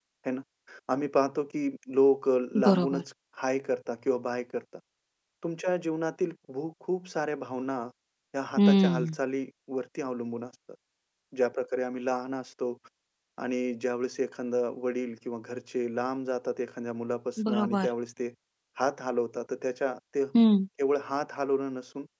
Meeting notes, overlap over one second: none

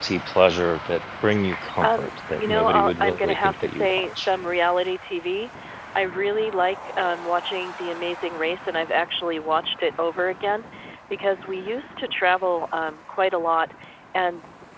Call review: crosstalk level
present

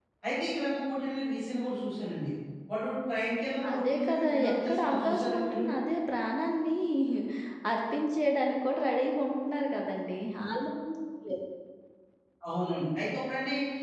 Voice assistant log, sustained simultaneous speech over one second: present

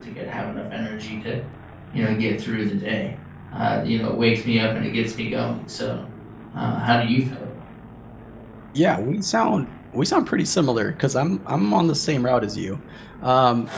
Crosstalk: none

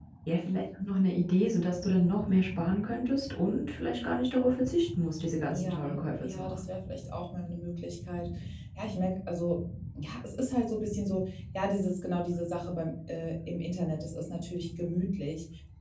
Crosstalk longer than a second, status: present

